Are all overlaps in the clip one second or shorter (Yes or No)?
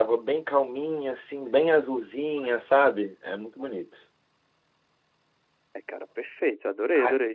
Yes